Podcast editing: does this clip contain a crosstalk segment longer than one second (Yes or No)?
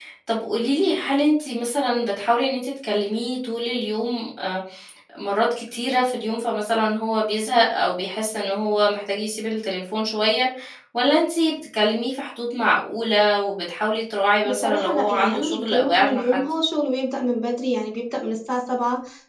Yes